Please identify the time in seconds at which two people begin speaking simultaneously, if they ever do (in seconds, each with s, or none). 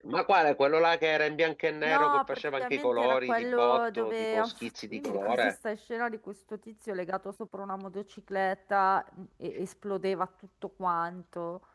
1.8 s